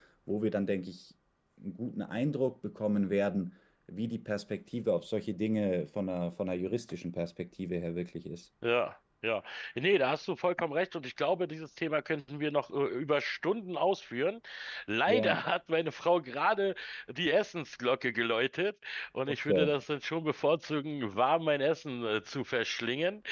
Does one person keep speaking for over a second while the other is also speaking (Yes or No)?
No